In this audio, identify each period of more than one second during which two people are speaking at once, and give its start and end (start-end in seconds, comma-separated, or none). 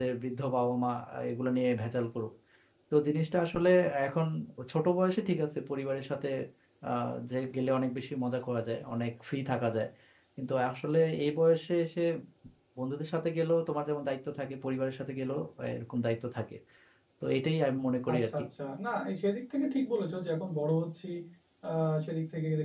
none